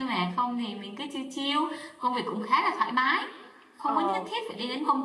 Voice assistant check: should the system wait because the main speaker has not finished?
Yes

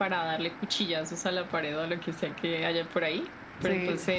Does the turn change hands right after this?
No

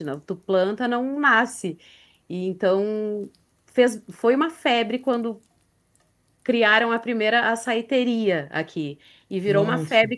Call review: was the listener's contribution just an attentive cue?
Yes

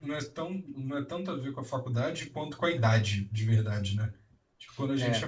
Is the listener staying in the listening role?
Yes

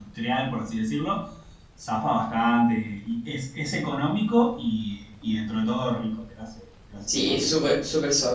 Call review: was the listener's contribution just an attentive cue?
No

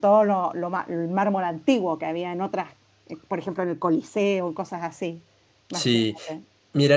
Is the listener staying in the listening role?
No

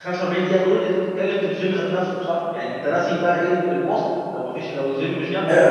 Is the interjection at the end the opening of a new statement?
Yes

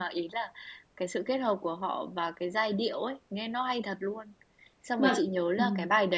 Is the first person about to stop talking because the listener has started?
No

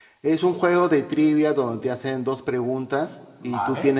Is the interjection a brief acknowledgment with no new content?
Yes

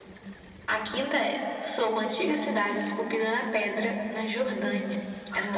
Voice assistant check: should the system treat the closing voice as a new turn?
Yes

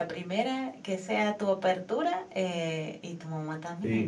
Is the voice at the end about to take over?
Yes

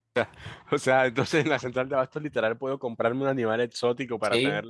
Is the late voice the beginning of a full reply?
Yes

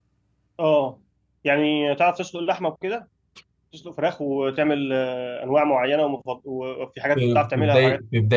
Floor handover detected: Yes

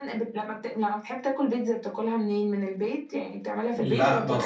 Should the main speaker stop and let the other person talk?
Yes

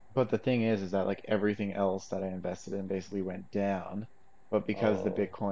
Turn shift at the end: No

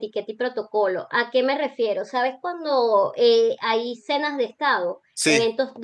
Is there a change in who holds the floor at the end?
No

